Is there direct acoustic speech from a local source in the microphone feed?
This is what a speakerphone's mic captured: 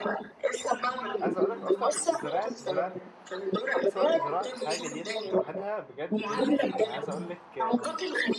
Yes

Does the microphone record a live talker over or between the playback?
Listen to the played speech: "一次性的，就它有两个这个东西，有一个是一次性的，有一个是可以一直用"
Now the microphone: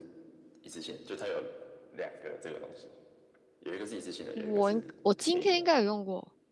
Yes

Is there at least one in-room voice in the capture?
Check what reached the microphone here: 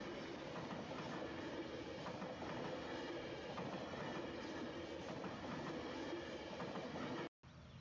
No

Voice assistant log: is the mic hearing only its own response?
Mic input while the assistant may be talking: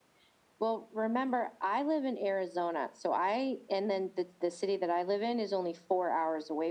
Yes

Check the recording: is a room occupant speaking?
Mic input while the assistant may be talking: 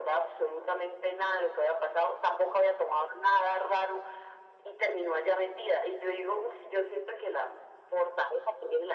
No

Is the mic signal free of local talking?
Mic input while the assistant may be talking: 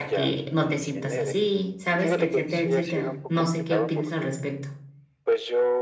No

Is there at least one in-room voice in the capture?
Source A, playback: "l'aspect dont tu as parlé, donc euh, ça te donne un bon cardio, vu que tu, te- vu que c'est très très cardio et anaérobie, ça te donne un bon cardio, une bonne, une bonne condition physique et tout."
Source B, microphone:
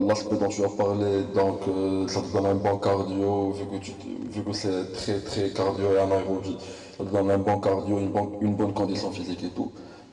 No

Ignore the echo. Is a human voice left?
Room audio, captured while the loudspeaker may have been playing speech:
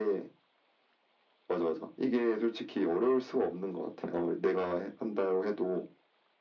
No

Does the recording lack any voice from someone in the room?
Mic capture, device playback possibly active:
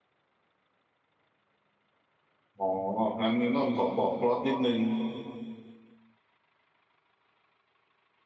No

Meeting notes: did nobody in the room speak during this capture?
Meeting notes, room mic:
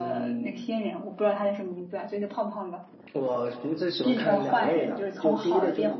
No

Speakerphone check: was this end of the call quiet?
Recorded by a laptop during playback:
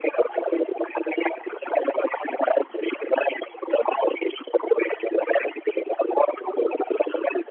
Yes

